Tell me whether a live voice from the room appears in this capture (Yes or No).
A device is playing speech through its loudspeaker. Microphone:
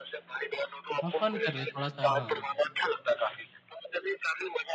Yes